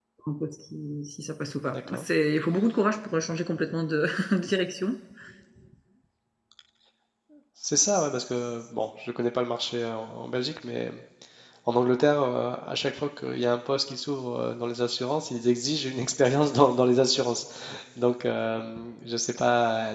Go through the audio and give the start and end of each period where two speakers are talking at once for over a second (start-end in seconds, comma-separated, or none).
none